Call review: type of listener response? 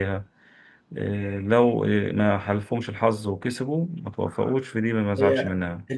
taking over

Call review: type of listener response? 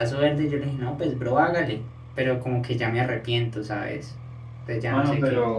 taking over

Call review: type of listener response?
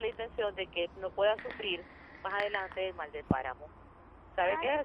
taking over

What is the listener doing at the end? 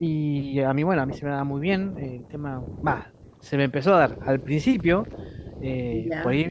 listening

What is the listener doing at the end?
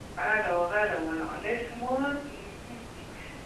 listening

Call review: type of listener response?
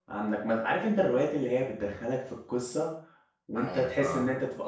listening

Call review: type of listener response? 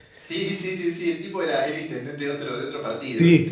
taking over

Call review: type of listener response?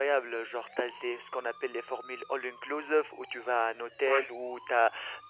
listening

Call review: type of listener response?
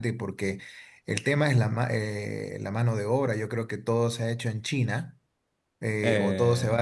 listening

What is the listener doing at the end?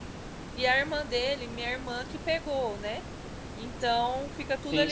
listening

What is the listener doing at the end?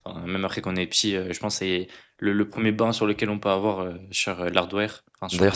taking over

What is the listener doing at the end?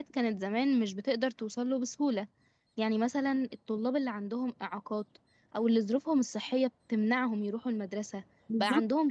listening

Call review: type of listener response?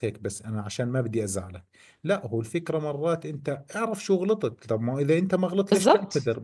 listening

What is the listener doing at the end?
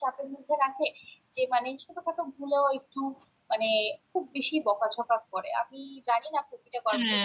taking over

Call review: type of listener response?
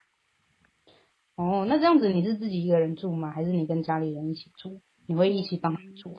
taking over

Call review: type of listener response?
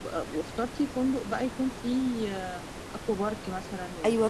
taking over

